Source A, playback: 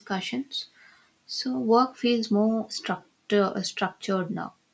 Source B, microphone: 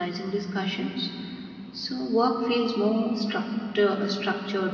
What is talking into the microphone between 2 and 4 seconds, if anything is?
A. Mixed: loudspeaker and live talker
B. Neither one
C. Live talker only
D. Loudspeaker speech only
D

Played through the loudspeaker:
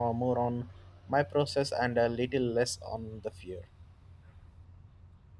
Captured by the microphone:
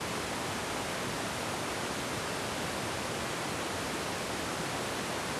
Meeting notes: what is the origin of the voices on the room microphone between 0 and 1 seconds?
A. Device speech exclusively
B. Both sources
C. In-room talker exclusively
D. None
D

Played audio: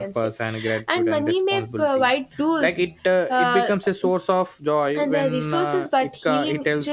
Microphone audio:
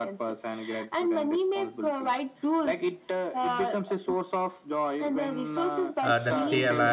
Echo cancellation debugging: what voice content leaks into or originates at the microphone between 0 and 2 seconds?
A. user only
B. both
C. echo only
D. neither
C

